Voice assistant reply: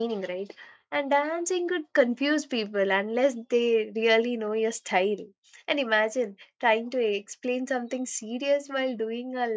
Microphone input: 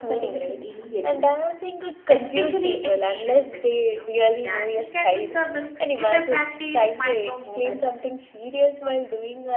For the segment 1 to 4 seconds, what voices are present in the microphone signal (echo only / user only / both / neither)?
both